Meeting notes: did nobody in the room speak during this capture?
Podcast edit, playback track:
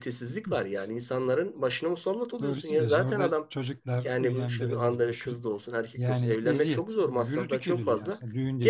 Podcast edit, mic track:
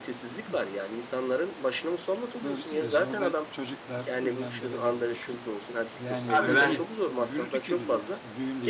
No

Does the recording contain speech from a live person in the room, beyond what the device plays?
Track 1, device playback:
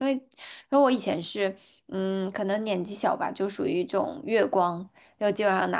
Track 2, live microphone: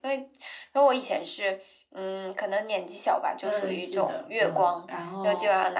Yes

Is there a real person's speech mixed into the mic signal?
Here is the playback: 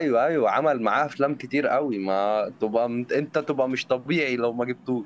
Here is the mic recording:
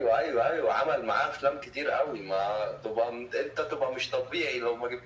No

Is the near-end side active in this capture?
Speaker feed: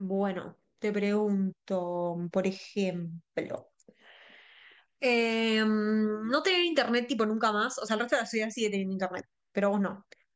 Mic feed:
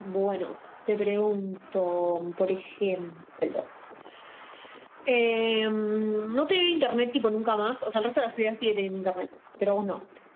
No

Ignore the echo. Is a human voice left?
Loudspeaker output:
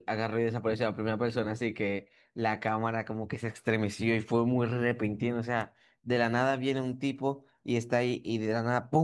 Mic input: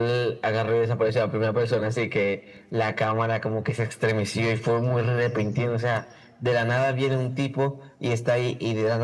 No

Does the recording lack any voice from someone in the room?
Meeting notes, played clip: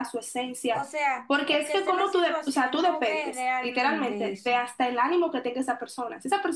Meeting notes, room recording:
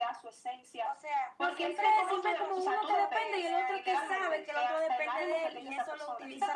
No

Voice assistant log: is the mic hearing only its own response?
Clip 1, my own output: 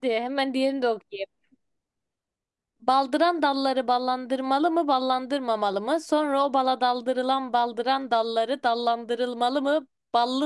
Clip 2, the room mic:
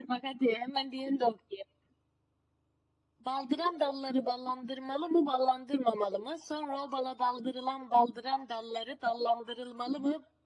Yes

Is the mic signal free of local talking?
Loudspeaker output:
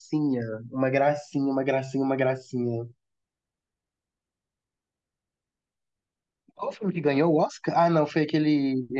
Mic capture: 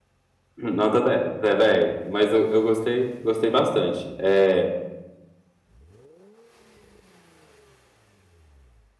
No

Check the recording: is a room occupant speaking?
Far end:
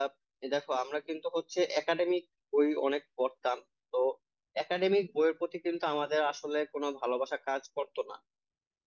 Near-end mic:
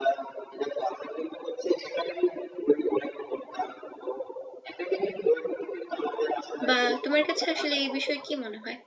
Yes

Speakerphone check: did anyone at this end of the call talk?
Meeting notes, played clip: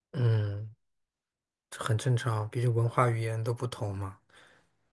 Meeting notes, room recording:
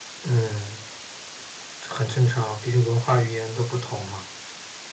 No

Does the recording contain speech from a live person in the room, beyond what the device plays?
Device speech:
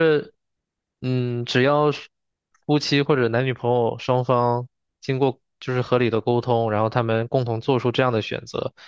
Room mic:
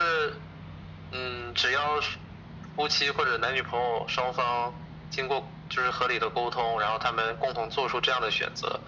No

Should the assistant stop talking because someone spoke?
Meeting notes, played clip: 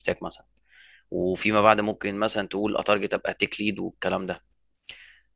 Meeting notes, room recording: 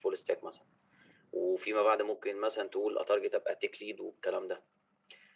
No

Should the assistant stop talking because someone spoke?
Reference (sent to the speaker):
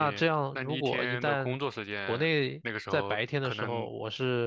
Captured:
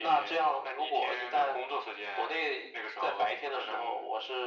No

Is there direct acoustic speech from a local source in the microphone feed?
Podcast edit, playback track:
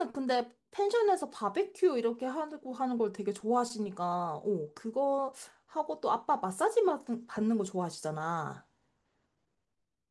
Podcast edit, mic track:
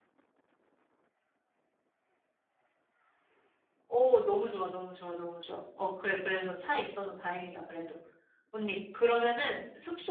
Yes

